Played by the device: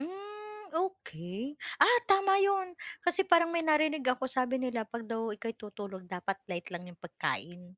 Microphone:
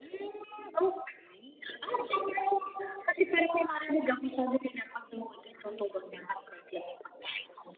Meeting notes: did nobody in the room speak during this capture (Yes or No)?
Yes